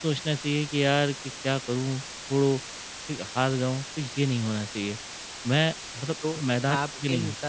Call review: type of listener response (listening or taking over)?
taking over